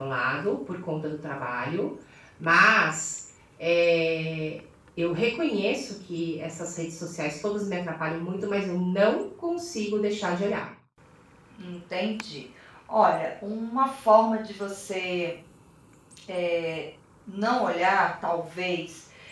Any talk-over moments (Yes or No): No